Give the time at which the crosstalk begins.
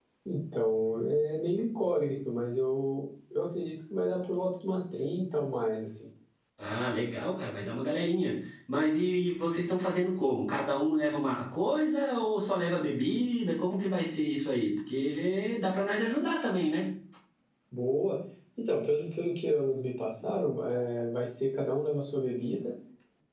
none

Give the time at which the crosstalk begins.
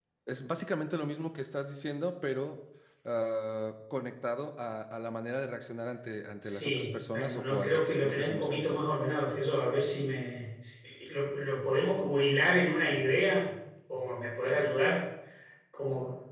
6.4 s

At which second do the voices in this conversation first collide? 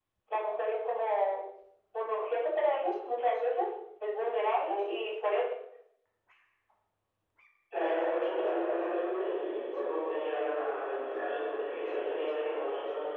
none

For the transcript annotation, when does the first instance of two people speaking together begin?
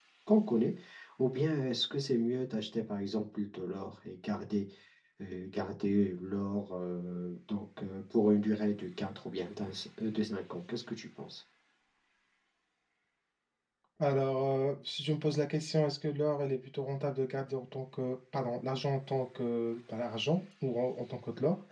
none

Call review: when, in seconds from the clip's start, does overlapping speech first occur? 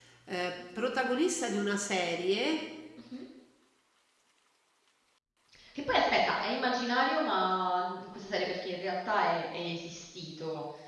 none

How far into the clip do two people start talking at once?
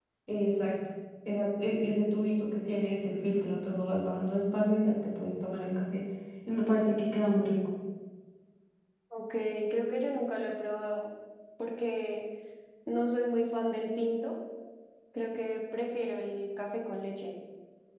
none

